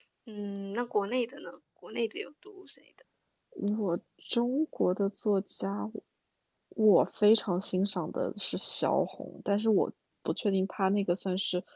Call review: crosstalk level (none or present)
none